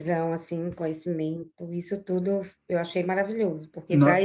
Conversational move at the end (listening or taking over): listening